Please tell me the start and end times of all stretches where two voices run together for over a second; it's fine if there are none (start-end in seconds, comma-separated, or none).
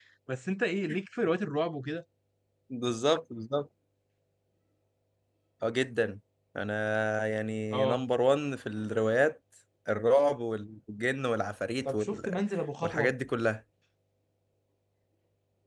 none